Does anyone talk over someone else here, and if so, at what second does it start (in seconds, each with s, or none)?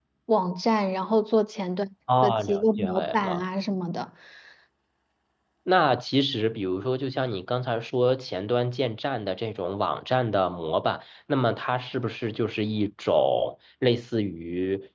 2.1 s